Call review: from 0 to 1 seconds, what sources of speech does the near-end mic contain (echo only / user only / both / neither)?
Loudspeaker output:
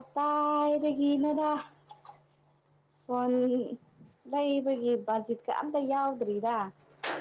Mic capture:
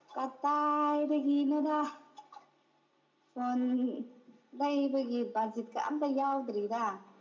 echo only